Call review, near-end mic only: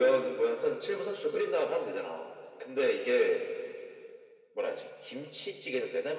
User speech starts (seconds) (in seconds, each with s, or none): none